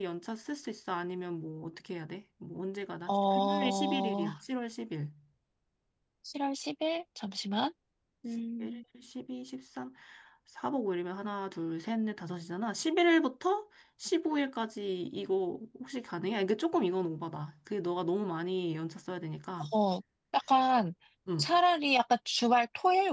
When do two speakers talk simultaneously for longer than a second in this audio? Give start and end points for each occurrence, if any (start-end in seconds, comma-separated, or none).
3.1-4.3